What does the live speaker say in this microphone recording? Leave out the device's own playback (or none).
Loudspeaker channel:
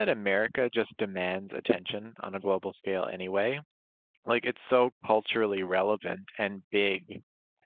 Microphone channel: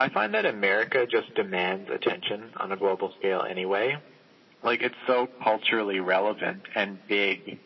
none